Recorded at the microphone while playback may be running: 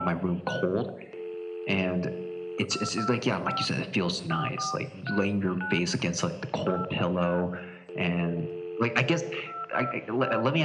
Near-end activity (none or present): none